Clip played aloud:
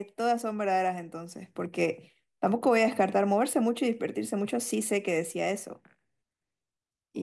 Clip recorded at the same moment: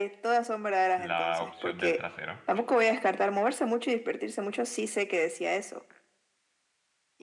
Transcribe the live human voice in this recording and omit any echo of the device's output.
la opción del trasero.

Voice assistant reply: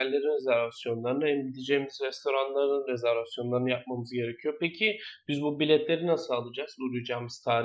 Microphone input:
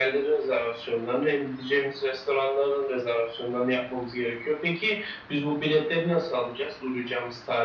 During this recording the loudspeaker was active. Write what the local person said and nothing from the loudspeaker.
none

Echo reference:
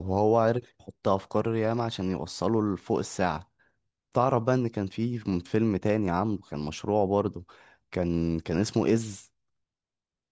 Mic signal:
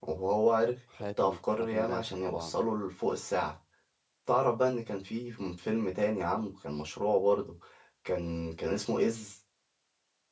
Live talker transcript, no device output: حاتم حاتم باشا طبعا

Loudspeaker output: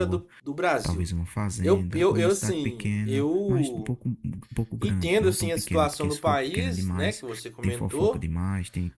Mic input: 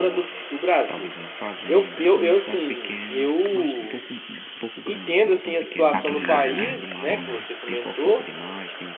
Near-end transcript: Maturidade, né? Ou não?

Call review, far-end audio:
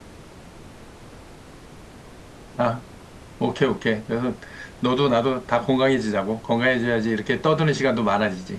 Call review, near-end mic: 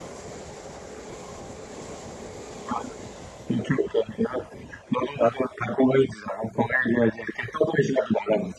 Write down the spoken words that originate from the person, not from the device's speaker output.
none

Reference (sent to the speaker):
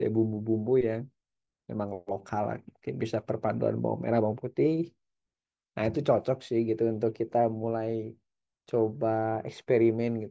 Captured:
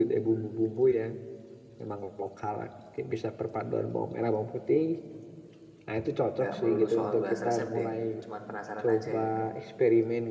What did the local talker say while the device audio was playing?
Nggak melulu soal bahas resep deh, cuman penasaran aja gitu.

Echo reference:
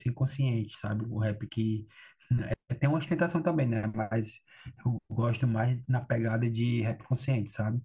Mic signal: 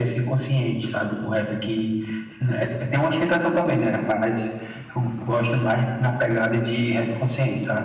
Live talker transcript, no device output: none

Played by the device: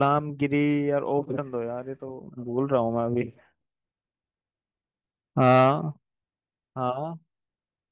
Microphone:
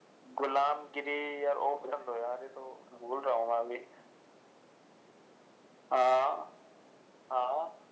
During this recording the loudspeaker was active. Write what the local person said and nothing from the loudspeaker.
none

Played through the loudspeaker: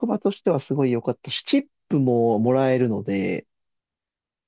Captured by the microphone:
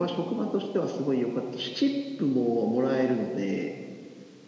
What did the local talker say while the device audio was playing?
none

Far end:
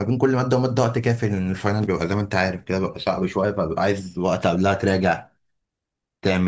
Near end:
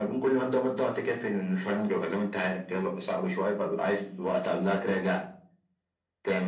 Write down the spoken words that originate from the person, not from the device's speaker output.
none

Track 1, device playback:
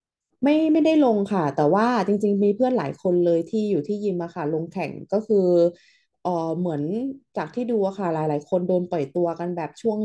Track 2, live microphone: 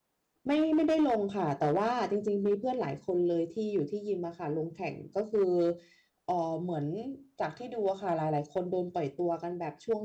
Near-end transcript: none

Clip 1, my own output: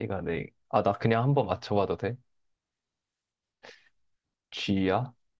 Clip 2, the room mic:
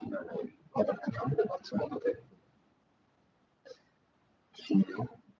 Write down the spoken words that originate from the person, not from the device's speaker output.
none

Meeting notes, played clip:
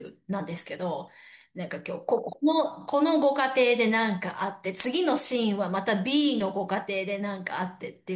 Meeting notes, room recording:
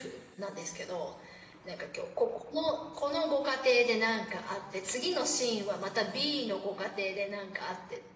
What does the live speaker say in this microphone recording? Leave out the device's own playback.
none

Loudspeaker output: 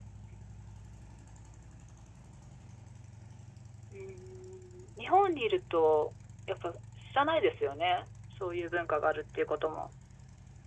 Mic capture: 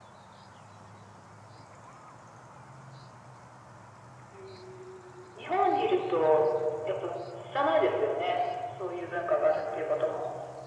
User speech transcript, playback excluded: none

